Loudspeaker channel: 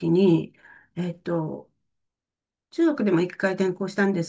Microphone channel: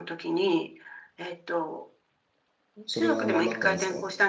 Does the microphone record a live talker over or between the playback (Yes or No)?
Yes